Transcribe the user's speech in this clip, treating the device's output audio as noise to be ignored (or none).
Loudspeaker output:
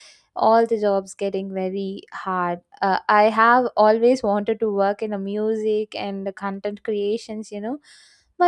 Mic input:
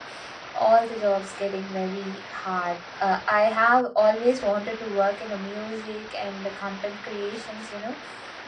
none